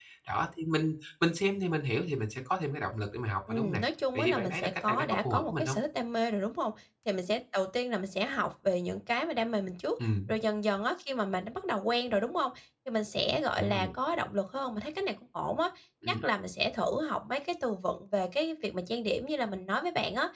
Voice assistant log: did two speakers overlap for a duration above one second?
Yes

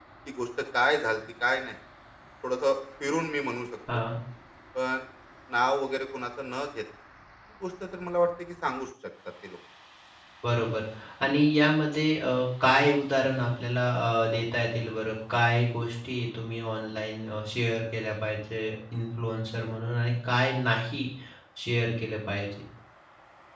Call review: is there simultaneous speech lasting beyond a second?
No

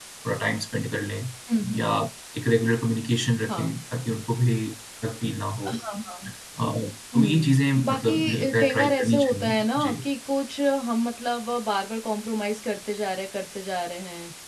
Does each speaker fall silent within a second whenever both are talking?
No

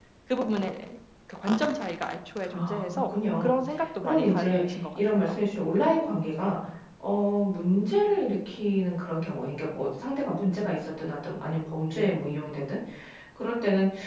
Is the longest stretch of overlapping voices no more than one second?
No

